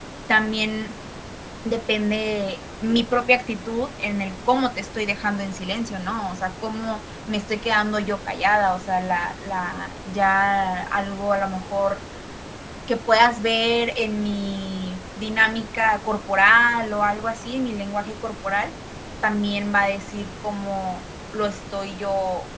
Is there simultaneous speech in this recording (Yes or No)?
No